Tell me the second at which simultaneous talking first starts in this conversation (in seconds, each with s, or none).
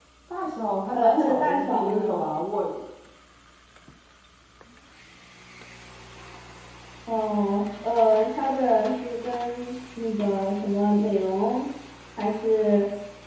0.9 s